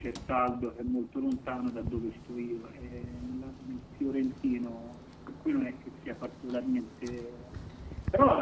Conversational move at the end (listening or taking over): listening